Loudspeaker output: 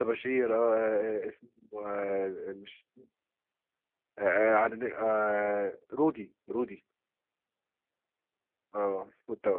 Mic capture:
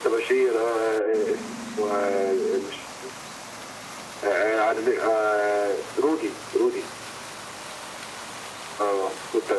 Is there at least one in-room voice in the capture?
No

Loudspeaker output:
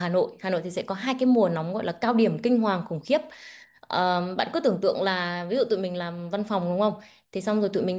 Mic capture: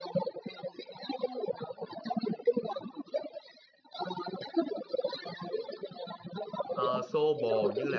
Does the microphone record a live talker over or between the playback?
Yes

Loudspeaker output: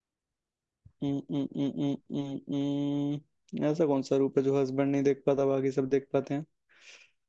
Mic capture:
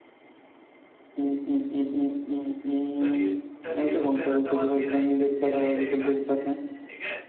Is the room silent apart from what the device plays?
No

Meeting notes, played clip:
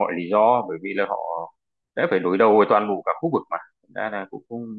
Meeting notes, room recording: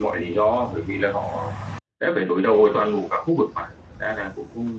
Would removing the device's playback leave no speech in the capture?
Yes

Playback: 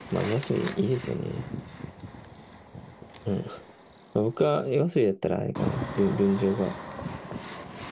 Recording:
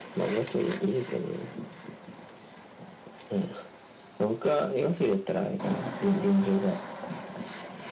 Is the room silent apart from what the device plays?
Yes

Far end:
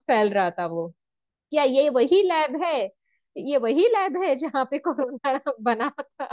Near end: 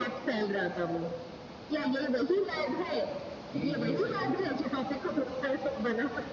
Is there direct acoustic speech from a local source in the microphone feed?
Yes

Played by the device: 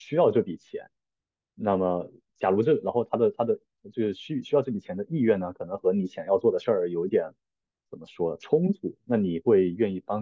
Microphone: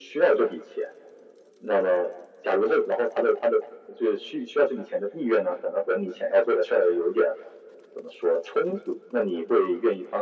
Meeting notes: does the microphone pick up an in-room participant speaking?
No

